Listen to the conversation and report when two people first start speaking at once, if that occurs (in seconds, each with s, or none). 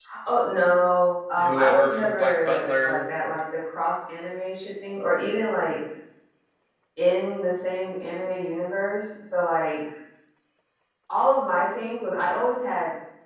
1.4 s